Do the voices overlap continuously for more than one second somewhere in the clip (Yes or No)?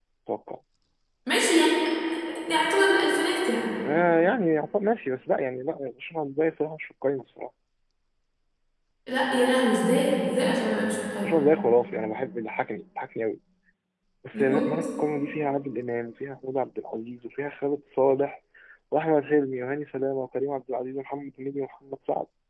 No